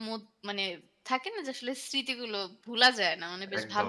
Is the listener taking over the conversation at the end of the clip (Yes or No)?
Yes